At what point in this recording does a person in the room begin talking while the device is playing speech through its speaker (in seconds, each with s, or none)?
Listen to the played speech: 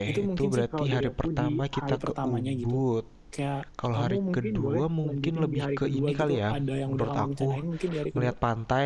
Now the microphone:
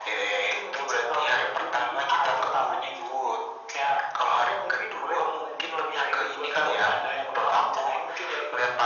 none